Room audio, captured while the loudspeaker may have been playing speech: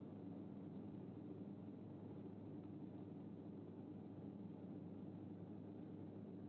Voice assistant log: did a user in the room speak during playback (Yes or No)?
No